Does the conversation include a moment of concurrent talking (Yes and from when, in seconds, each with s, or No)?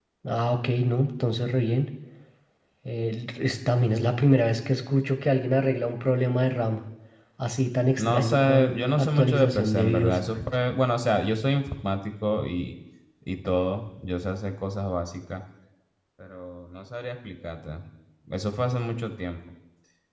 Yes, from 8.0 s